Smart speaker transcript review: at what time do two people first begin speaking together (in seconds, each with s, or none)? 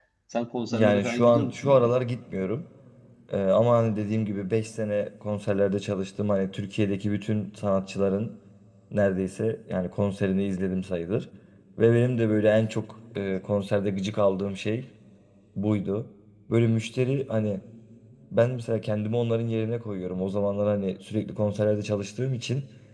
0.7 s